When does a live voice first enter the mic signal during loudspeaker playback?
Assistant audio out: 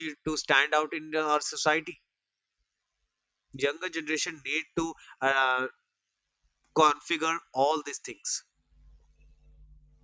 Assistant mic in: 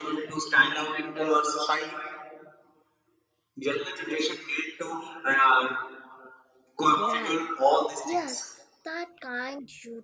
6.9 s

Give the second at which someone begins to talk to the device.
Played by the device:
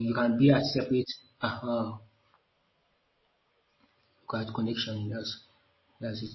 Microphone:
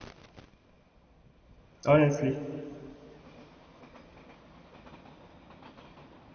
1.9 s

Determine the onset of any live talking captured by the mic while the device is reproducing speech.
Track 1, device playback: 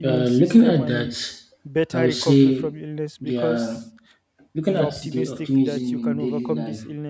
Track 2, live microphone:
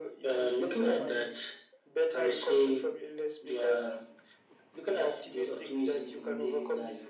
none

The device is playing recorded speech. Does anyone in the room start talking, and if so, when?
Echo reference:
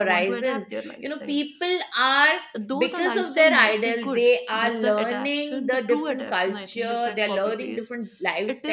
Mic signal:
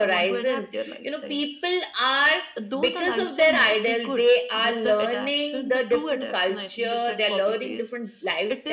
none

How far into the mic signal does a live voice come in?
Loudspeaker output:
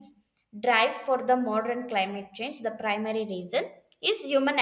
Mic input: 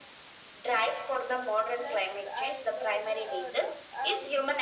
1.7 s

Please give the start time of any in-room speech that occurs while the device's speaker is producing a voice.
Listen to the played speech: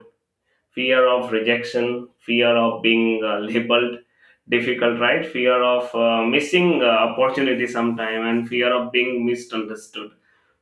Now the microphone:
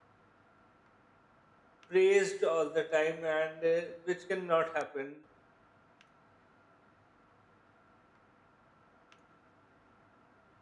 1.9 s

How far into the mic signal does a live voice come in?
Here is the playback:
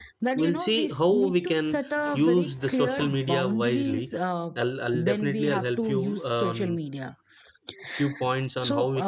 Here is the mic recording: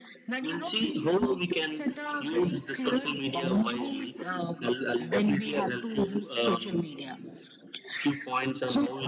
none

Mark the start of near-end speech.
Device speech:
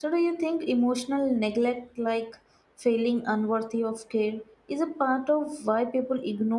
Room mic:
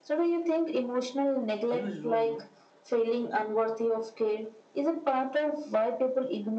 1.7 s

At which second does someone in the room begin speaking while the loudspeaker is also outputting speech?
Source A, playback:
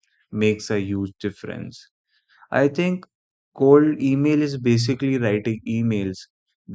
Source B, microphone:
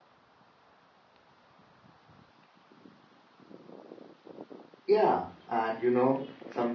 4.9 s

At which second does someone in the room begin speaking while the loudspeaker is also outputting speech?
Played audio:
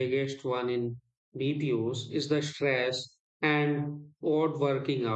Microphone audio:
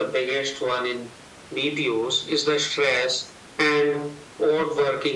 none

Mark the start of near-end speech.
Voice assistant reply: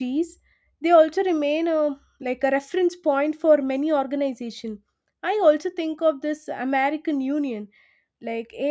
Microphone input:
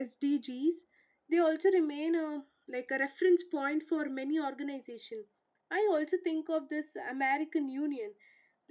none

